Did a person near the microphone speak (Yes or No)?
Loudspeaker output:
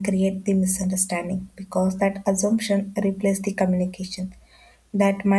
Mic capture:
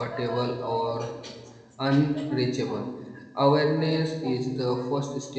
Yes